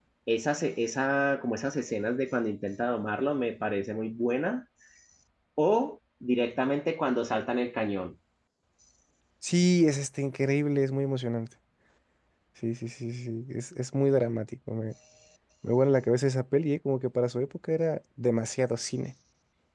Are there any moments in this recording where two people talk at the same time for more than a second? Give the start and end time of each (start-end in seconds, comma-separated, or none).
none